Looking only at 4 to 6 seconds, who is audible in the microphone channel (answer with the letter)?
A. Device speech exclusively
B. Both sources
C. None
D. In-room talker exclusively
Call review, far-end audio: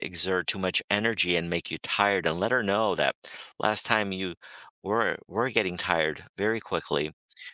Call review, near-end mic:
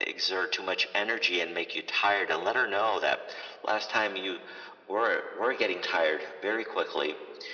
A